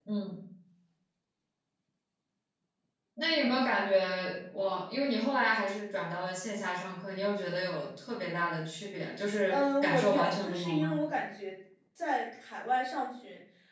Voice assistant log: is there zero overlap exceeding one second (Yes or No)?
No